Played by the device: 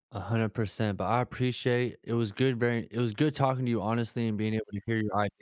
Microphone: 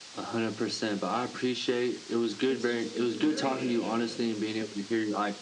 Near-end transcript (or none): it's just infuriating,